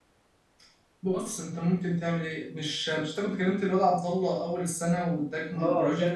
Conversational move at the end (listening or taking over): taking over